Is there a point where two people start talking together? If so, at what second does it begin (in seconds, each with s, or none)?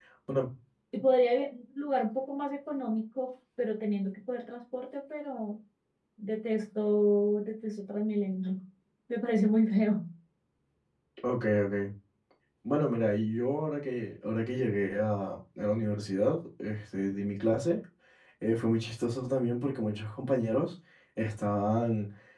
none